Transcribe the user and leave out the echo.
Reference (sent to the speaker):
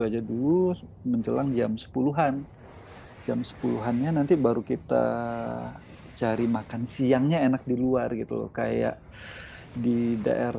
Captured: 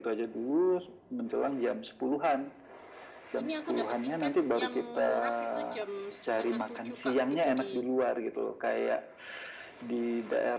ini aku dapat tiket yang murah itu jam setengah tujuh Kak. Itu di

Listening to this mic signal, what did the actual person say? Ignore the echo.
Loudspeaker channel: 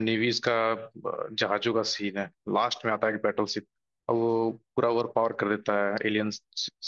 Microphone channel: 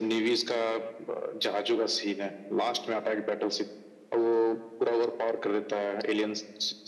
none

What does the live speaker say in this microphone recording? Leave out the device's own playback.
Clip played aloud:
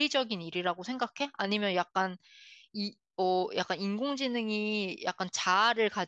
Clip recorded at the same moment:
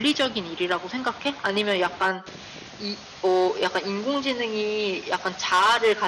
none

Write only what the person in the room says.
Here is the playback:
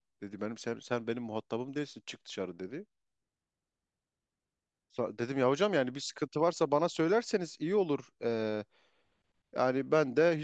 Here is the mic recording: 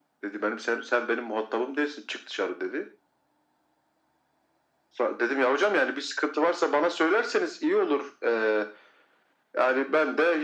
none

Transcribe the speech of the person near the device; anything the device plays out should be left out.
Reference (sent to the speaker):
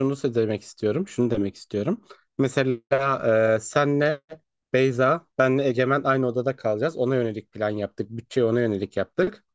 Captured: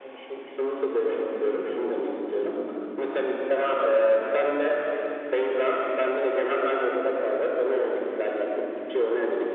none

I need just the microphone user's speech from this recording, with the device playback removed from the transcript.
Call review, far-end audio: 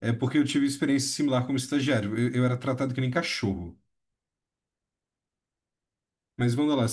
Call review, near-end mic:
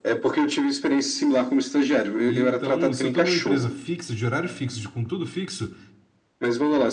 E então, se eu tô numa empresa fixa, de horário fixo, de com tudo fixo,

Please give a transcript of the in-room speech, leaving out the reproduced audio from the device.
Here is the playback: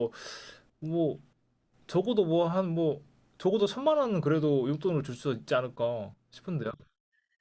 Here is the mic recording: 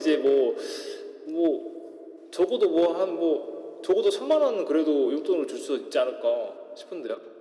none

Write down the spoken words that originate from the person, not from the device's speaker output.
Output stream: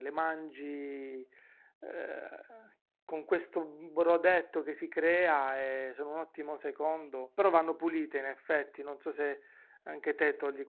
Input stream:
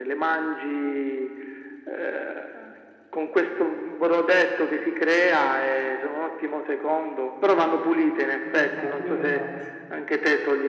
Io lo fa- io lo faccio.

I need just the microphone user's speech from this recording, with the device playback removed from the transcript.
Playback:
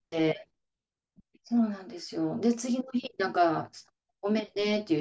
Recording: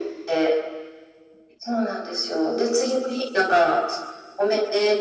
none

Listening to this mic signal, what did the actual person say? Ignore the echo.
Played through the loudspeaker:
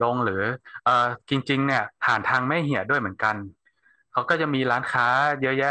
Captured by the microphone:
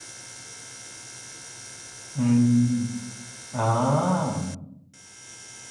อืมอ่า

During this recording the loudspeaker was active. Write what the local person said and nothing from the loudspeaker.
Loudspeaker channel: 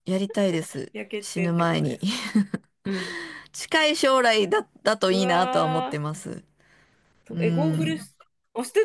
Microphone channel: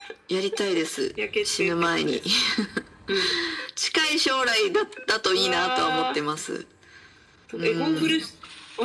none

